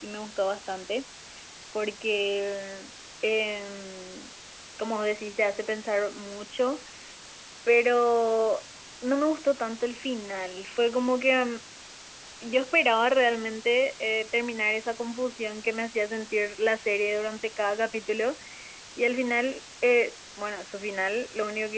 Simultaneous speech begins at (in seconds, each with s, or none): none